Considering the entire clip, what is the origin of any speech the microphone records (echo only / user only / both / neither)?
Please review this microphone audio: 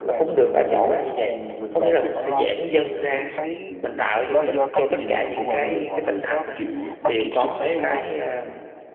both